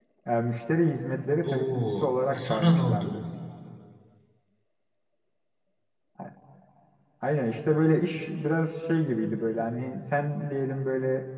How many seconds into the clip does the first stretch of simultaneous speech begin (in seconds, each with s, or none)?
1.4 s